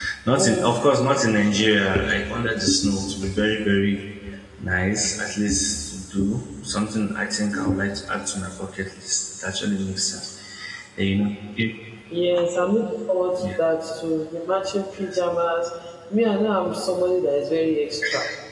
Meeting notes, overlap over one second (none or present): none